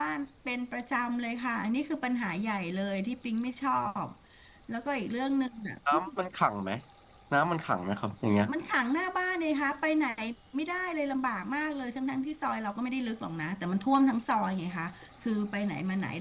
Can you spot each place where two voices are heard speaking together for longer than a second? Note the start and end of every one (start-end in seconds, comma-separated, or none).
none